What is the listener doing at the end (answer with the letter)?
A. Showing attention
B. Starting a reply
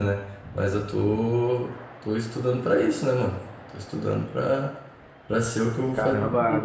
B